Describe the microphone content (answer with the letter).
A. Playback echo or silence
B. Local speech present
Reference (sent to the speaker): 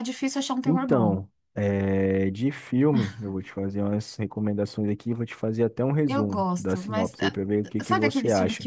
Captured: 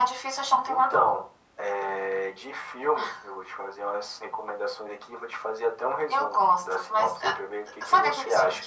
A